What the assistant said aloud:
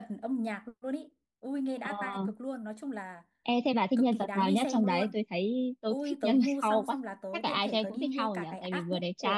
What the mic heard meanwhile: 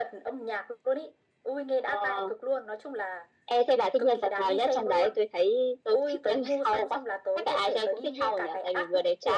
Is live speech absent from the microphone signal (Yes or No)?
Yes